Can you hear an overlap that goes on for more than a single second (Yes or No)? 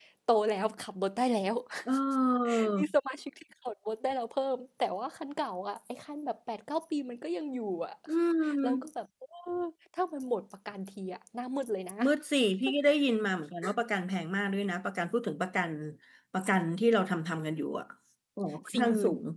No